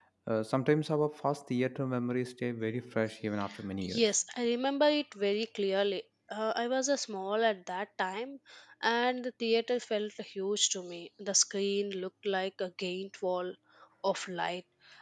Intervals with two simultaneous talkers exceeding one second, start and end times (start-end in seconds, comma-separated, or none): none